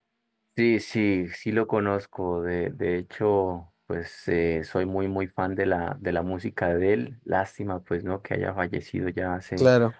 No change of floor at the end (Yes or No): Yes